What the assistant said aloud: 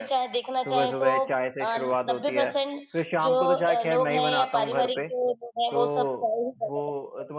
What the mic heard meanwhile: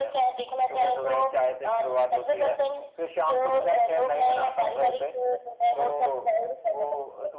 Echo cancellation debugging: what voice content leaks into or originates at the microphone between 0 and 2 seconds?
echo only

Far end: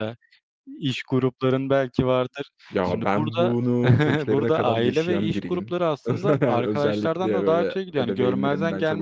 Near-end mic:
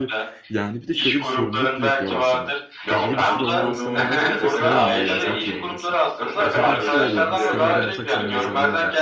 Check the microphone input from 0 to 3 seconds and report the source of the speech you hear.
both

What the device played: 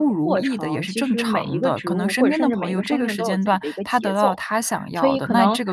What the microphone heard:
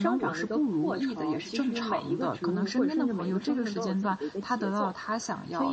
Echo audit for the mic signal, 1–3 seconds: echo only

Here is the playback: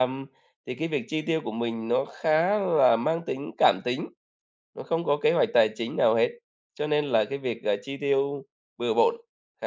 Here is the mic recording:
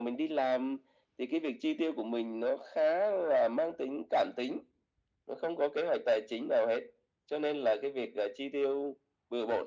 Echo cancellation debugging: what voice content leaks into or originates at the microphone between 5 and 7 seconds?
echo only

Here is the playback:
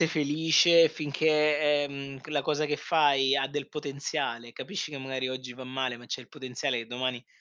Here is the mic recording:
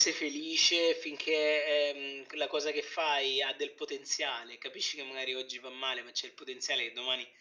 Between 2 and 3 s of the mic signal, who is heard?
echo only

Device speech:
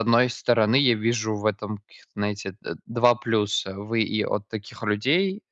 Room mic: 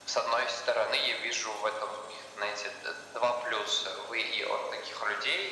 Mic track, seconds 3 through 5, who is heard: echo only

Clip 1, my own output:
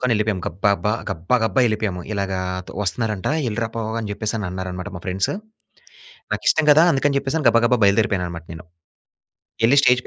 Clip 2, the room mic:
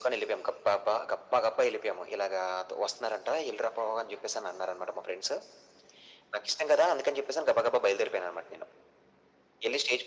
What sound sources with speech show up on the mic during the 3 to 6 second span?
echo only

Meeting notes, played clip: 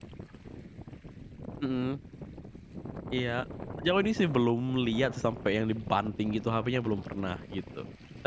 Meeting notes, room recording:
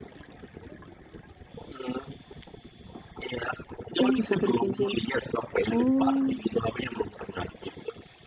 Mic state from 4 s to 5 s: both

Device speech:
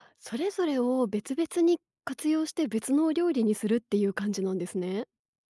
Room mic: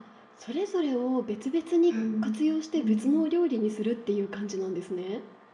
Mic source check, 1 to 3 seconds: both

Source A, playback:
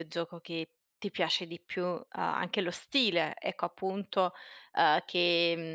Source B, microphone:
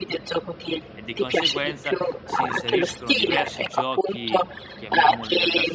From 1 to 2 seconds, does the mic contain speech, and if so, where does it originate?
both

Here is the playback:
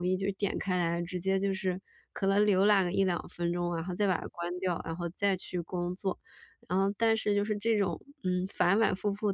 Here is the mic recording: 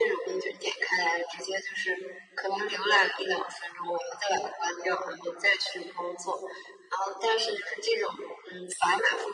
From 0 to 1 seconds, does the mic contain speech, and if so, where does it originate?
echo only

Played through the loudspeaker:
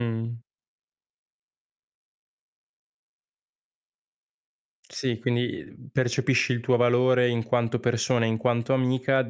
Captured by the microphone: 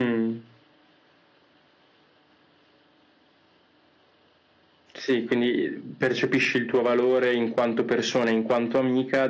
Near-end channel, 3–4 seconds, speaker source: neither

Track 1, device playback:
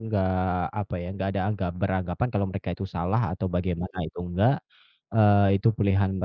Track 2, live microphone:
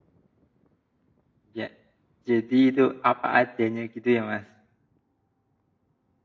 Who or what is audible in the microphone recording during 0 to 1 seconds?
neither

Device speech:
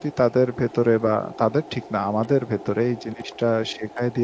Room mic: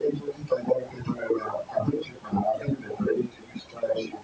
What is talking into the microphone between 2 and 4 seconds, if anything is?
echo only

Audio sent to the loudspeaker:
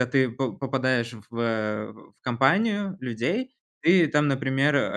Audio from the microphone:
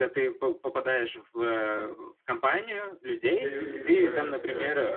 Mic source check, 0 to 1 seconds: echo only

